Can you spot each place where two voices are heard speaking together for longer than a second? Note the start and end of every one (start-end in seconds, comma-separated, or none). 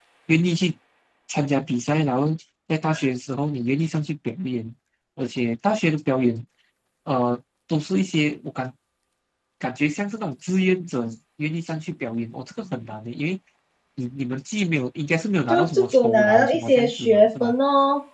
15.5-17.5